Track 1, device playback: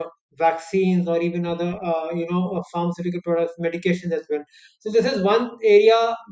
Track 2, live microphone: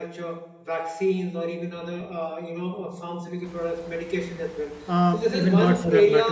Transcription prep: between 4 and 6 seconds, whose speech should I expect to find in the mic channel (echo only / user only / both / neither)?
both